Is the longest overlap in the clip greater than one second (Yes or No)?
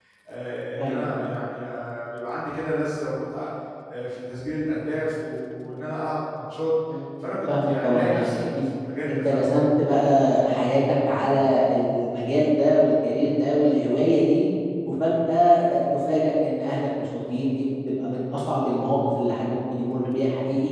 Yes